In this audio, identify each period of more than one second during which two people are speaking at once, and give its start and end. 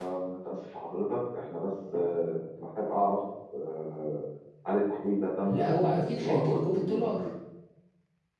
5.5-7.1

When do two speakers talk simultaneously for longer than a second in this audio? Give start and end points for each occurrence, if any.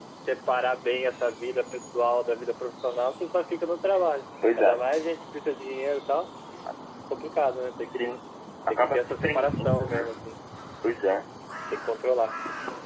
8.7-10.0

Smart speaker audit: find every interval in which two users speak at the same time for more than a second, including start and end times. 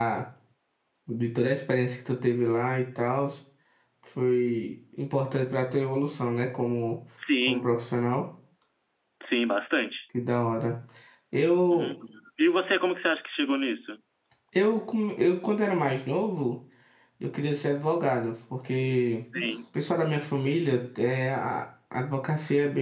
none

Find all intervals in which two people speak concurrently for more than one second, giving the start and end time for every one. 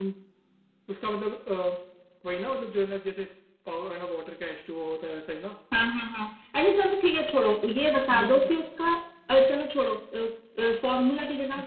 none

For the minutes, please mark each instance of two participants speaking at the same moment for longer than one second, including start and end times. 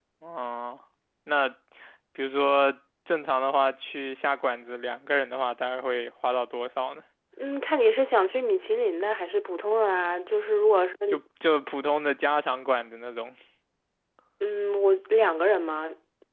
none

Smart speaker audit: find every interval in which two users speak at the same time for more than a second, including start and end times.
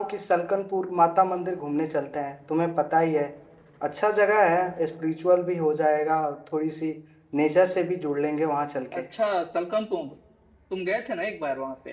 none

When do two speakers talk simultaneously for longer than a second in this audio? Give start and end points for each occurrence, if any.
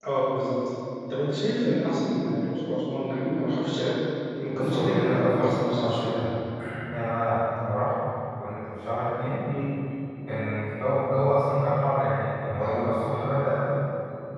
4.5-6.2

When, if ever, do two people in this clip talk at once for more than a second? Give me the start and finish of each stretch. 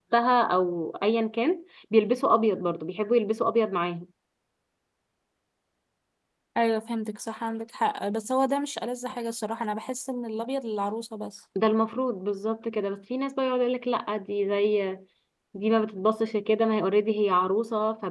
none

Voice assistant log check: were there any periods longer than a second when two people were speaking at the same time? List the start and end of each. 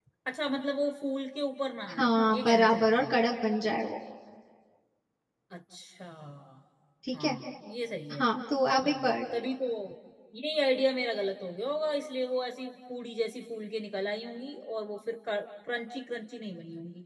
1.9-3.1

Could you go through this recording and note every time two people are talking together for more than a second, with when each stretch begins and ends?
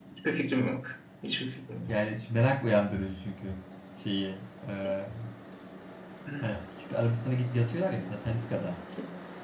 none

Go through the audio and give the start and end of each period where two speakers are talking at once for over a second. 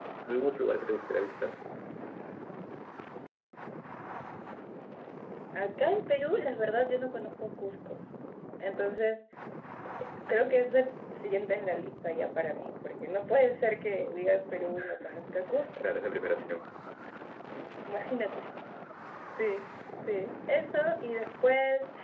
none

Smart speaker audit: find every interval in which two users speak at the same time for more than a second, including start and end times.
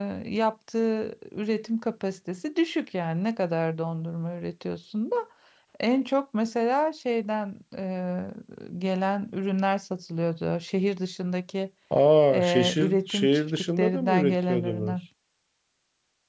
12.3-15.0

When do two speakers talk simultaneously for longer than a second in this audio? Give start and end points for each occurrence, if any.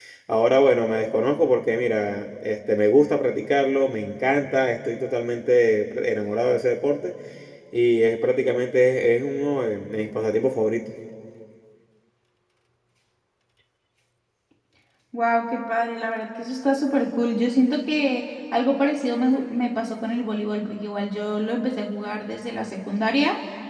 none

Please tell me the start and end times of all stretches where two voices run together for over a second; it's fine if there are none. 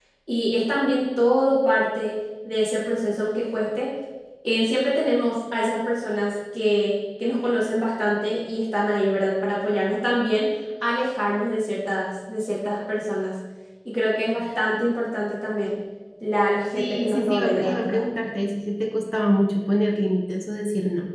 16.8-18.0

